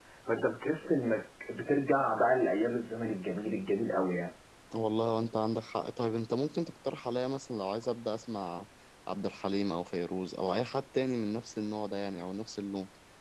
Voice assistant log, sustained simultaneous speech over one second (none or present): none